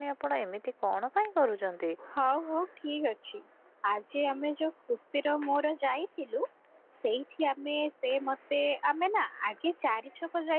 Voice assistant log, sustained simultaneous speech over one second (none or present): none